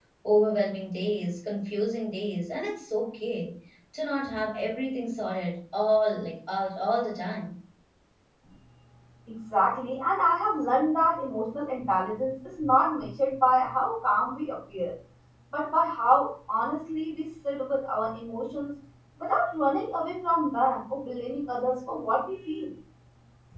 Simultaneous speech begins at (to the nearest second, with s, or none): none